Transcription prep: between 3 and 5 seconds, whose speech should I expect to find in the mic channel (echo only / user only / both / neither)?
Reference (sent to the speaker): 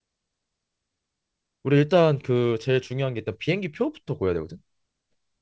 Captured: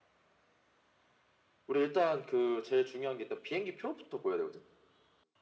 echo only